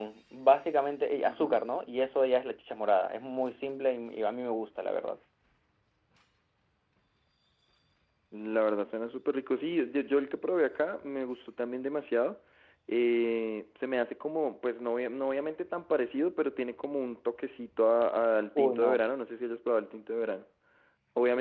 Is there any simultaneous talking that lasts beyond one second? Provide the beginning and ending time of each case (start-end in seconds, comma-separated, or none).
none